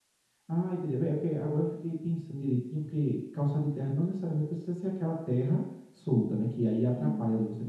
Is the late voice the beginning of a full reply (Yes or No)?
No